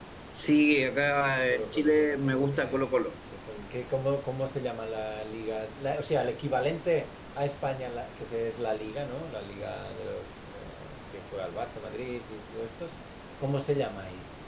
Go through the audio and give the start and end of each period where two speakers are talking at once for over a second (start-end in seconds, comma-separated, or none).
1.5-2.8